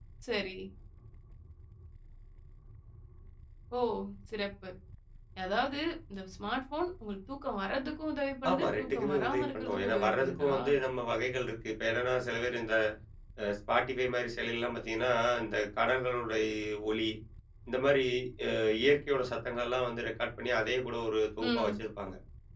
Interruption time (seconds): 8.5 s

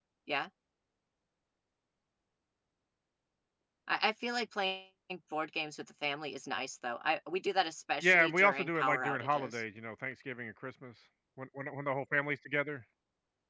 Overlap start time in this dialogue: 8.0 s

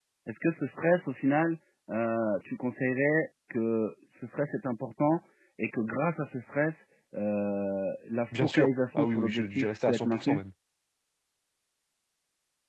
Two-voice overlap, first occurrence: 8.3 s

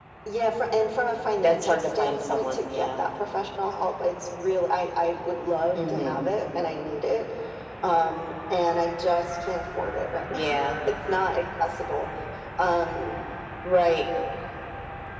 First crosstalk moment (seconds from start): 1.4 s

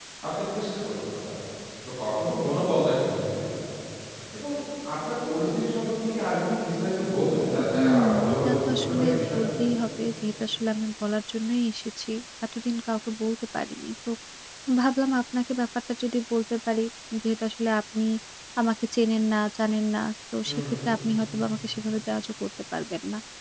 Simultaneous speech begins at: 7.7 s

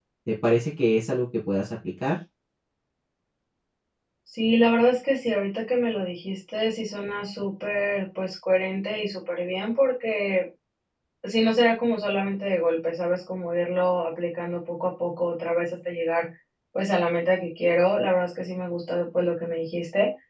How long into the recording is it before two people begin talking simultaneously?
none

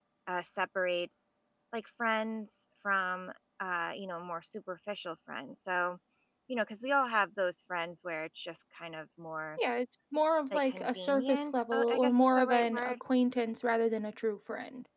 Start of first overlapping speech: 10.5 s

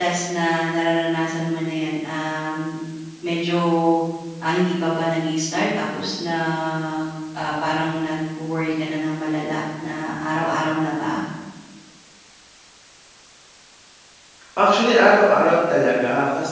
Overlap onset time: none

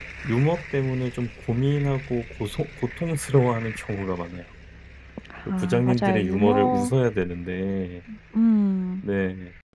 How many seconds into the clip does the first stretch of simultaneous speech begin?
5.5 s

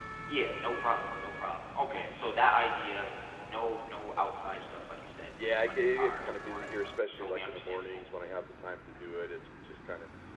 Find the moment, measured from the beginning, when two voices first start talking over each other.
5.4 s

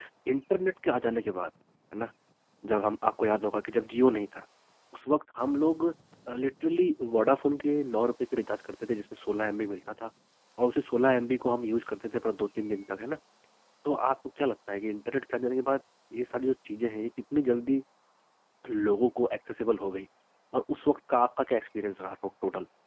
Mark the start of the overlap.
none

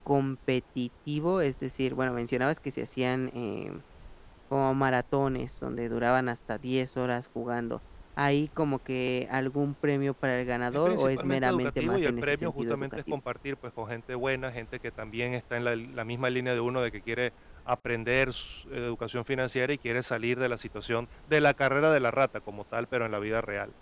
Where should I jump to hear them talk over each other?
10.8 s

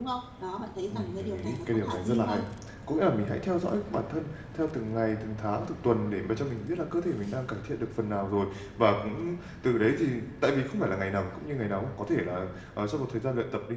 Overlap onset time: 0.9 s

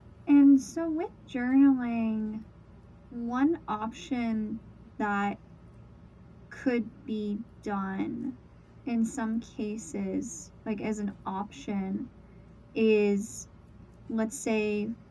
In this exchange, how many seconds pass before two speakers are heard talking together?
none

